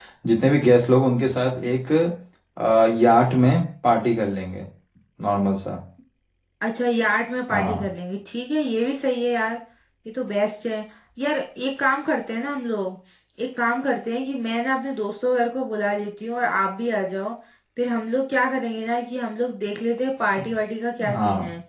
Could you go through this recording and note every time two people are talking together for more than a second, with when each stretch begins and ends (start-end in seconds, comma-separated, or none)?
none